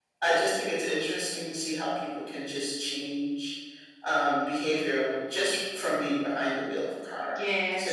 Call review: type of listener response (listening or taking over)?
taking over